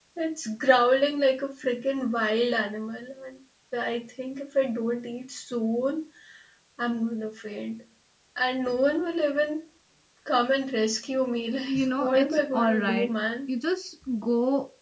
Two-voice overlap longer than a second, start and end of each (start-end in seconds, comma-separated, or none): 11.7-13.1